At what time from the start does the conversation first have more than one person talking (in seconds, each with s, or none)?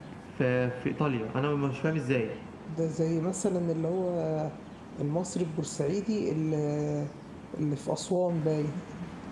none